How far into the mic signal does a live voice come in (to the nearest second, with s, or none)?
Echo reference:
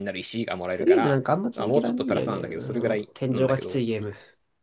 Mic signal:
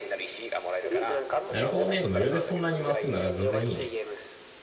1 s